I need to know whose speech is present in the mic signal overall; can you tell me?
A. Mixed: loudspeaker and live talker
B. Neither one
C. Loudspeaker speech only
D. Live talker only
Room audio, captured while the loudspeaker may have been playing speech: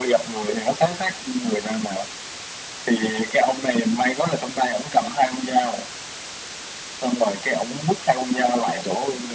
C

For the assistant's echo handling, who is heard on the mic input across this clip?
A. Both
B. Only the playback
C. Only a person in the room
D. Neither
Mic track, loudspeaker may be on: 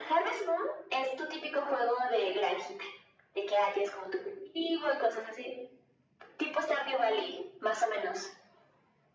B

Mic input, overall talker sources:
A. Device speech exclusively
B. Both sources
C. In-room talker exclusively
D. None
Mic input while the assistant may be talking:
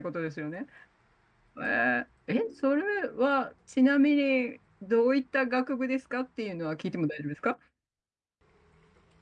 C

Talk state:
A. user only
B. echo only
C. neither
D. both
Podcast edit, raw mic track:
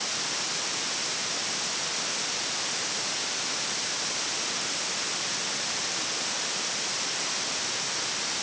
C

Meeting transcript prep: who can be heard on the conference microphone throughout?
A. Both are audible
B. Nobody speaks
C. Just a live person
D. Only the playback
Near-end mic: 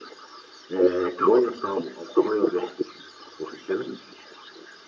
D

